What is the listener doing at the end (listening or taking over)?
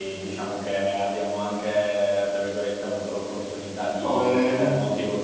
listening